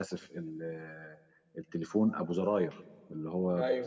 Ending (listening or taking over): listening